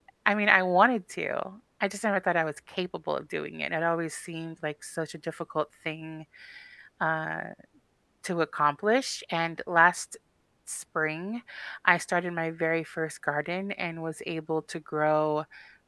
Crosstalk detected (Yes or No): No